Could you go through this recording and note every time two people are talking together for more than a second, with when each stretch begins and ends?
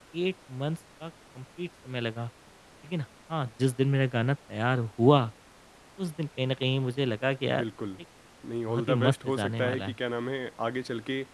8.7-10.0

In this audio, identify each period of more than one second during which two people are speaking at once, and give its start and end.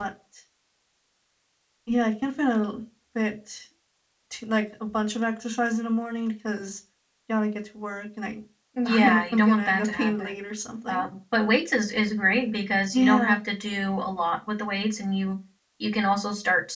8.8-10.3

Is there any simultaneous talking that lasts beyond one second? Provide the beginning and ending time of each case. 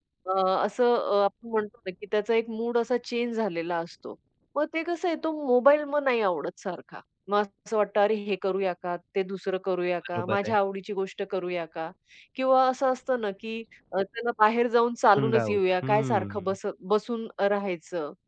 15.2-16.6

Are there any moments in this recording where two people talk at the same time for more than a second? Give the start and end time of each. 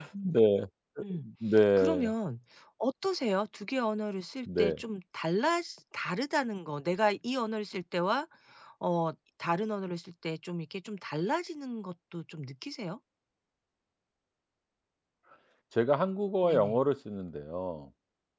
none

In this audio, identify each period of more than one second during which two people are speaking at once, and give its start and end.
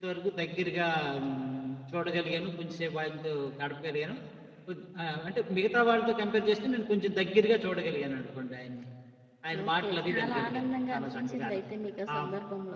9.6-11.6

